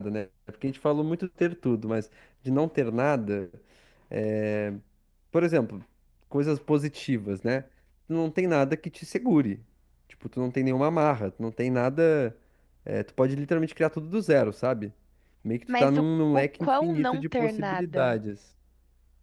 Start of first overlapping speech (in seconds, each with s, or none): 15.8 s